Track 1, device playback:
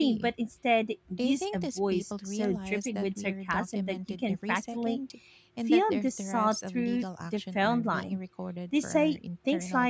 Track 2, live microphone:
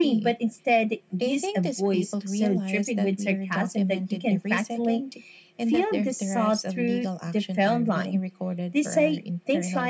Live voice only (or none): none